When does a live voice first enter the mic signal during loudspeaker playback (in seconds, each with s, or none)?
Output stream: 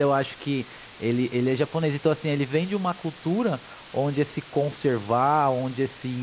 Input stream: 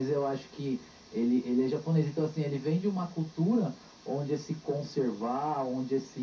none